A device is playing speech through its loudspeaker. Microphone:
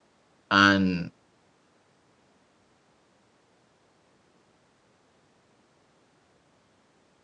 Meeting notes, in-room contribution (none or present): present